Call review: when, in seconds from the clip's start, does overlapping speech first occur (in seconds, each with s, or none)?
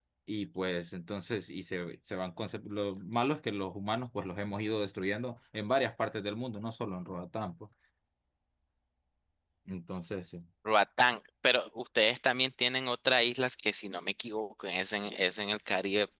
none